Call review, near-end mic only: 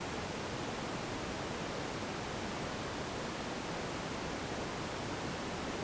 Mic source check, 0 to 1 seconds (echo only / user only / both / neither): neither